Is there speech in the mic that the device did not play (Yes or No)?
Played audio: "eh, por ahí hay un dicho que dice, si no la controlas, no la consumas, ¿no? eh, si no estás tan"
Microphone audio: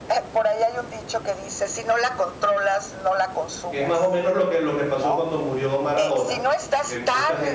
Yes